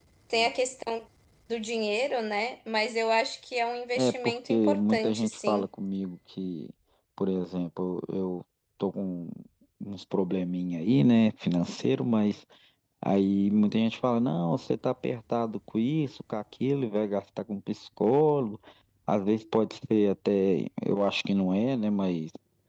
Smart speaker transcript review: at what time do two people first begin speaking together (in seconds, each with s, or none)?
4.0 s